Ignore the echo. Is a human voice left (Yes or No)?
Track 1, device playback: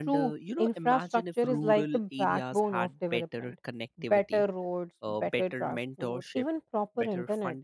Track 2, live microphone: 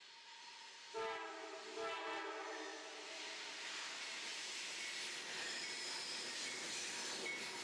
No